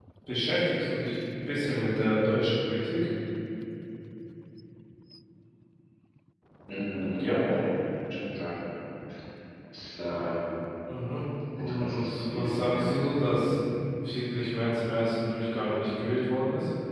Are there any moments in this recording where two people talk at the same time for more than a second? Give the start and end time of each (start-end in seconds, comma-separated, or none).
11.6-12.9